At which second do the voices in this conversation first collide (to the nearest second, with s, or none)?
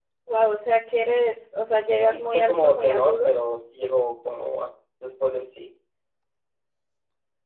2 s